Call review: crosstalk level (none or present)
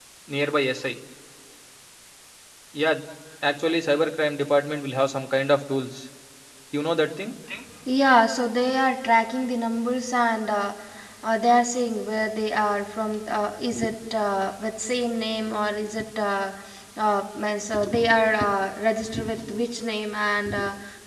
none